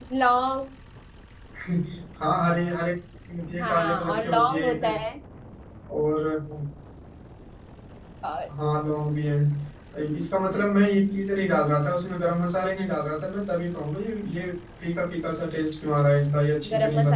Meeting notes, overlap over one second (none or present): present